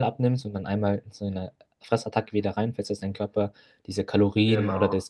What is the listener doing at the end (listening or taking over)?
listening